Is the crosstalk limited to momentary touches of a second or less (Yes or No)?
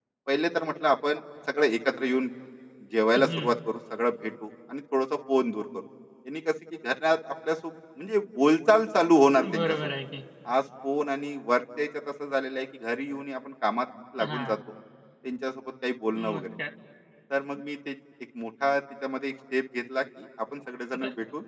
Yes